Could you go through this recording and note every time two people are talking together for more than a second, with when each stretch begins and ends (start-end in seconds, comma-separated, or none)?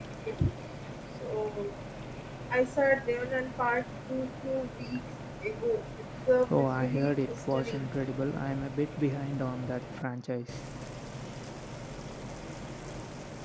6.5-7.9